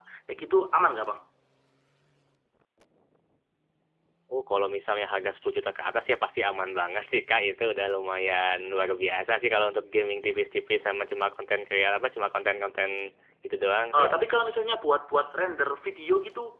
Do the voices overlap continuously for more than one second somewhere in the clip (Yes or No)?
No